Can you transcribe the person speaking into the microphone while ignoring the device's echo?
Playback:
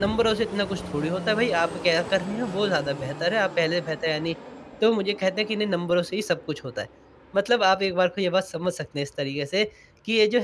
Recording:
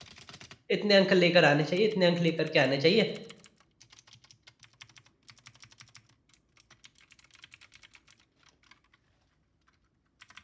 इतने अंक लेकर आने चाहिए, इतने अंक लेकर के आने चाहिए।

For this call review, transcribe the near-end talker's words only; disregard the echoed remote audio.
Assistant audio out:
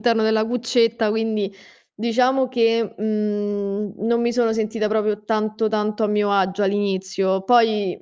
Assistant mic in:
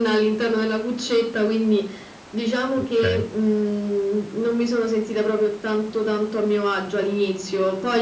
Okay.

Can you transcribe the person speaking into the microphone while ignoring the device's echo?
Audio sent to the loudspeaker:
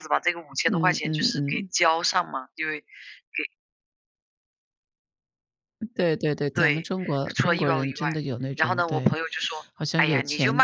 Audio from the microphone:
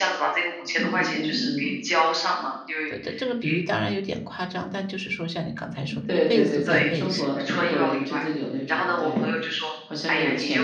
所以这个比喻当然有点夸张，但就是说像你刚才说的一辈子都在为信

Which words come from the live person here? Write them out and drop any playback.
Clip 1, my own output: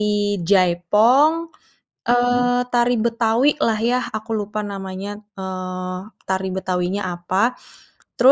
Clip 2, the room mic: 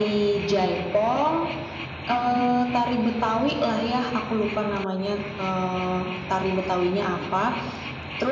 none

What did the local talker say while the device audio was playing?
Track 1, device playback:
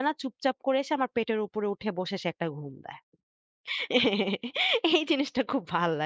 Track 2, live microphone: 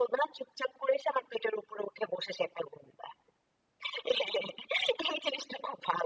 none

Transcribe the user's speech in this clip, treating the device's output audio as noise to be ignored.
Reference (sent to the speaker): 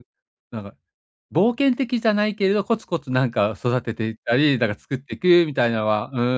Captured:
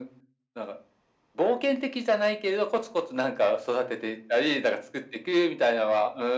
none

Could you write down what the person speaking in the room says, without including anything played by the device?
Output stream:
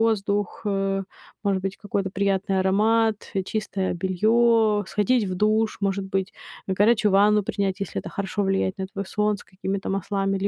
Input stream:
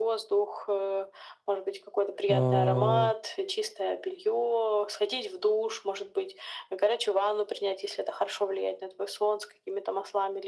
а,

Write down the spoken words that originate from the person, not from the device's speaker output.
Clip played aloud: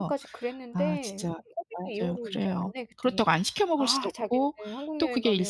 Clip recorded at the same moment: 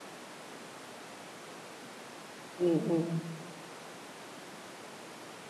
음음.

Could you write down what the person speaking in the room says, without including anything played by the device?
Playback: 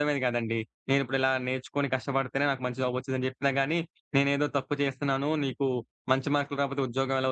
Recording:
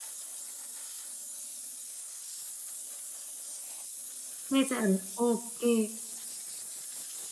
వేసారు. ఓకే.

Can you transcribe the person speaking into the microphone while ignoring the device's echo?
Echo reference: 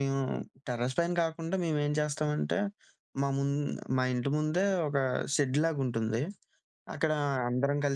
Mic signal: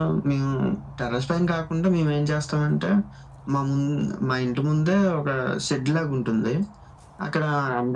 none

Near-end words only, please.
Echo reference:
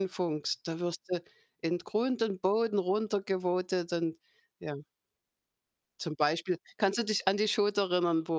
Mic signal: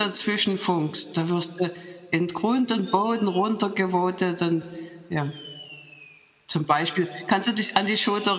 none

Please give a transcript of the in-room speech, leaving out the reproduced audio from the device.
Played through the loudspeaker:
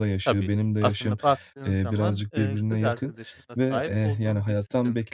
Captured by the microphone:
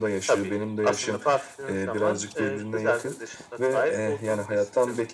none

